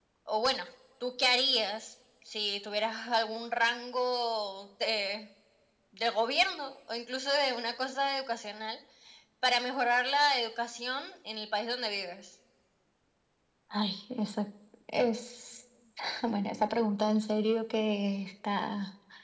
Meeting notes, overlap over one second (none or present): none